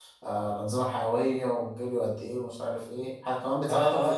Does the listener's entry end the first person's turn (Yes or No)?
Yes